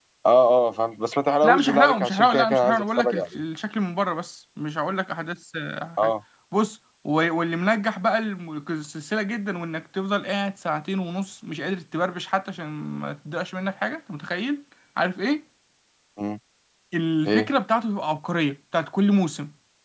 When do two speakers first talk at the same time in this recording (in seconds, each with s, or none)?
1.4 s